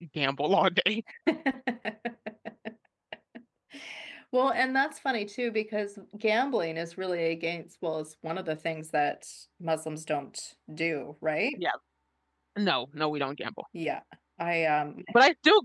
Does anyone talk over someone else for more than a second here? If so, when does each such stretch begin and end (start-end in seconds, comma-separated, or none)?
none